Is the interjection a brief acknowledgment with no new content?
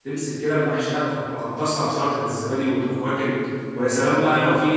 Yes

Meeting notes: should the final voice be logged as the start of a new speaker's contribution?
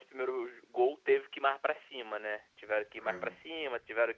No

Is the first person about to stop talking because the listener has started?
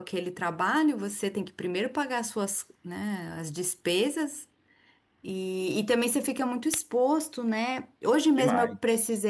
No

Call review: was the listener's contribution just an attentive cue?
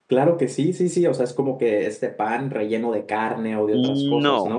No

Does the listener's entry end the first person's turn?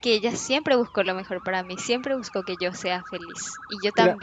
No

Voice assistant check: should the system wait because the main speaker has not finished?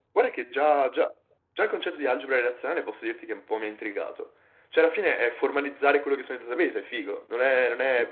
No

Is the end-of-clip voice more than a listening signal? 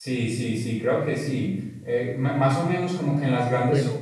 No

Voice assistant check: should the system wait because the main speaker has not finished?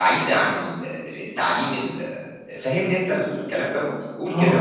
No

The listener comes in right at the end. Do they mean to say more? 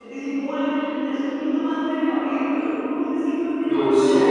No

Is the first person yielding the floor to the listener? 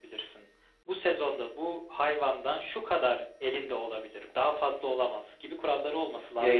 Yes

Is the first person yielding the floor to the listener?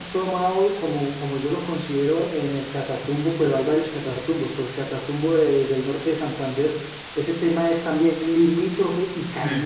Yes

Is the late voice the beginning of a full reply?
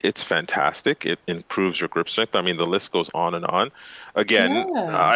No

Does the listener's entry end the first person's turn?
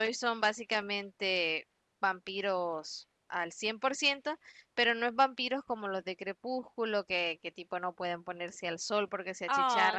Yes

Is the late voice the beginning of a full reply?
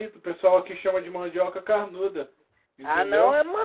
Yes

